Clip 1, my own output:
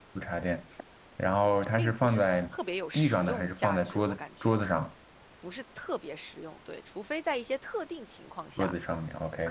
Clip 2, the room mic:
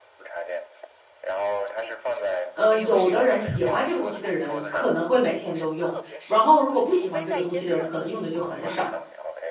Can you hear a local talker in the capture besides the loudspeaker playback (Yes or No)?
Yes